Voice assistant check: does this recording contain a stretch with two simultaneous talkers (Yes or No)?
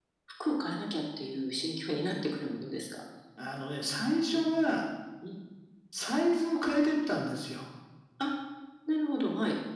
No